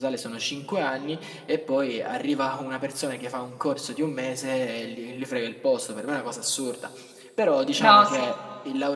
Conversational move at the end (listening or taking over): listening